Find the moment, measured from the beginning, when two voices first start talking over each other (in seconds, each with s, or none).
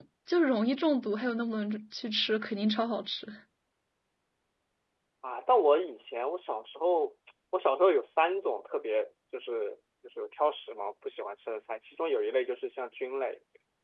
none